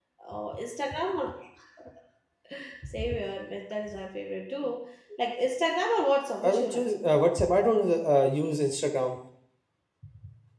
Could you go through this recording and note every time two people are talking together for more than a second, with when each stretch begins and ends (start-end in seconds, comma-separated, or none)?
none